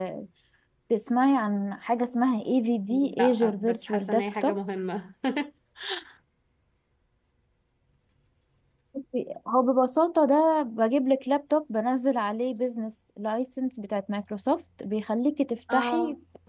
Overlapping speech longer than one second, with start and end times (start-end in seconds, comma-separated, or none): 3.2-4.6